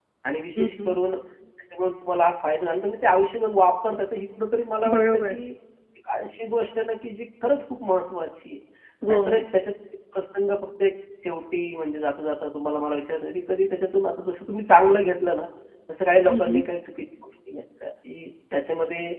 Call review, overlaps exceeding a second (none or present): none